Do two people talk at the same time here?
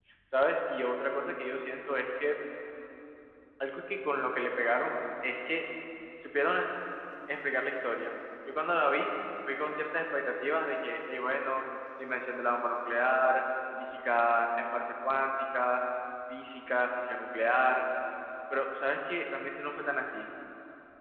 No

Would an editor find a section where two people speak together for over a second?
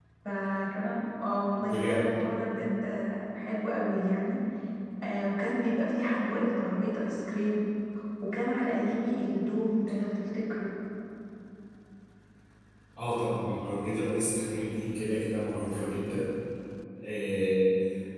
No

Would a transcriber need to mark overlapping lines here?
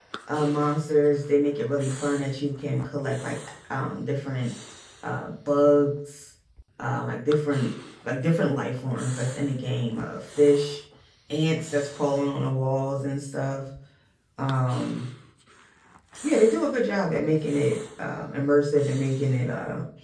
No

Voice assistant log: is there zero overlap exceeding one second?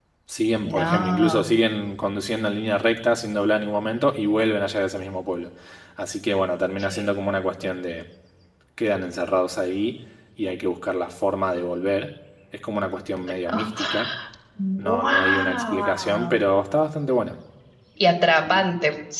No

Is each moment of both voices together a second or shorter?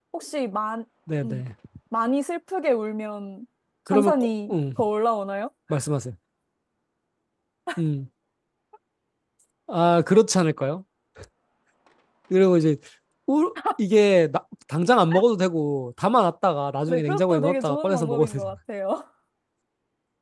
No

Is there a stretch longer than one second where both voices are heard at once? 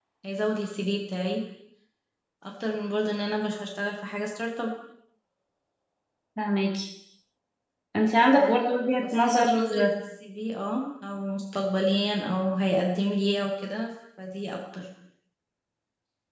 Yes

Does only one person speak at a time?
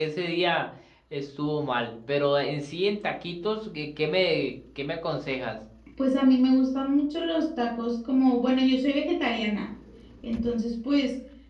Yes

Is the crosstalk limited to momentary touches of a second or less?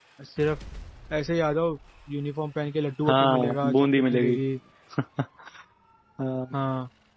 No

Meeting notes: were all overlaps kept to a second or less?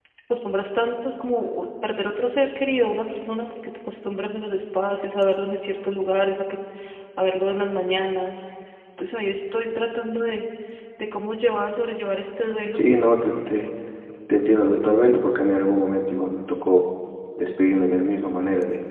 Yes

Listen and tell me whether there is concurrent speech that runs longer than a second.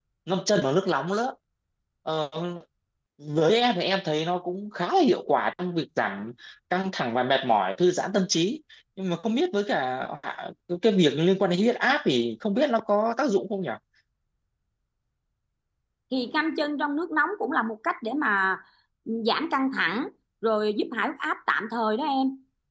No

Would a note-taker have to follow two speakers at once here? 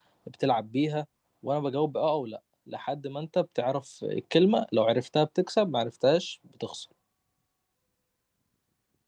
No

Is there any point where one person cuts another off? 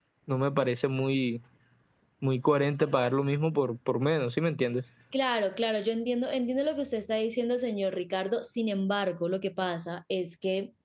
No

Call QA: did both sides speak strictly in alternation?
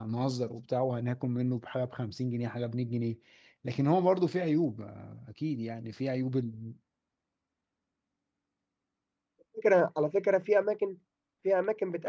Yes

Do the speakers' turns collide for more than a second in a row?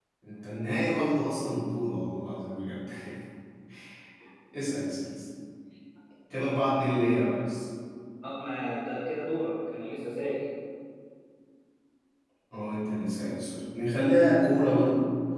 No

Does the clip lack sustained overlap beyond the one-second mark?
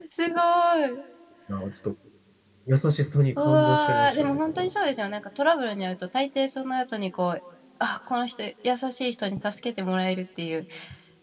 No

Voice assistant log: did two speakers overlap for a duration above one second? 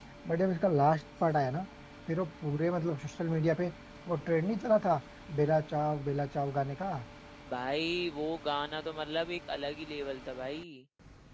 No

